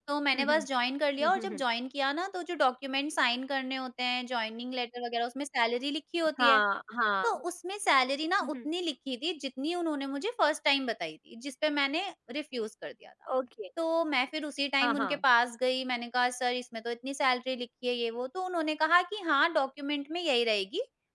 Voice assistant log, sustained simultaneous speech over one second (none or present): none